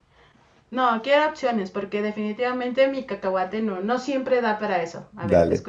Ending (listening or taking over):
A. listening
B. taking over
B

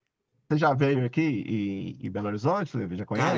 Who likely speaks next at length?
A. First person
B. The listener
B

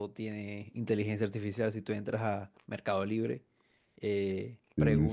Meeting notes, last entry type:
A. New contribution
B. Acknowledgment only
B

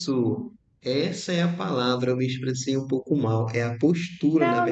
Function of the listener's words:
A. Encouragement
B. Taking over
B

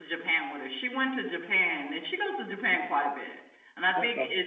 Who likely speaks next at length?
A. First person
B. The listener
A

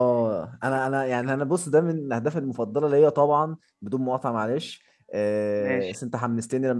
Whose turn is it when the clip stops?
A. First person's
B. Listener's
A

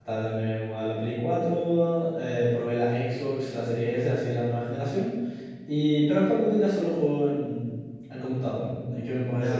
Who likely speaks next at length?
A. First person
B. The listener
B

